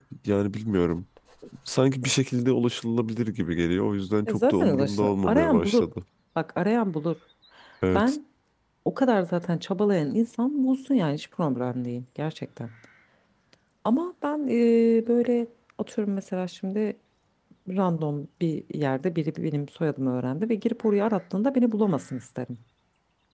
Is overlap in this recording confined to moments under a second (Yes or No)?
No